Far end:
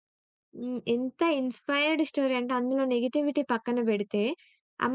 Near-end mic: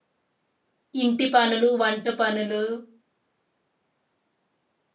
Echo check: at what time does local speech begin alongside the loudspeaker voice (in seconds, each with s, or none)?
1.0 s